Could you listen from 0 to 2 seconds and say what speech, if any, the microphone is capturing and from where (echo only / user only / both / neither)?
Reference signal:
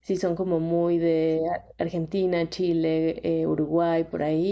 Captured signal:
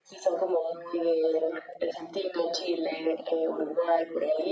echo only